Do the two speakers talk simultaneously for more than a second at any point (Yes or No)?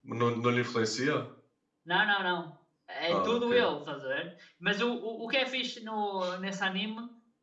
No